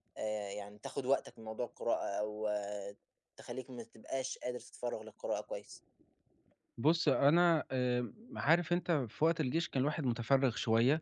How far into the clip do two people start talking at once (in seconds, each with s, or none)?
none